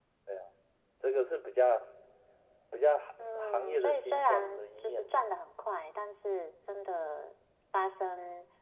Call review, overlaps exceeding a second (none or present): present